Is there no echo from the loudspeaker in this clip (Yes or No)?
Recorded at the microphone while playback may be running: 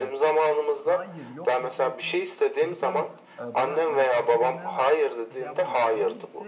No